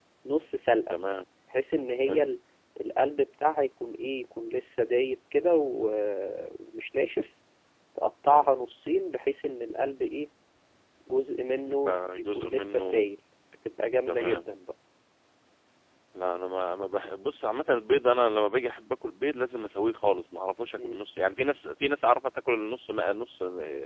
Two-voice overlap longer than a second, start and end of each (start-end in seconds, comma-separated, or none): 11.7-13.0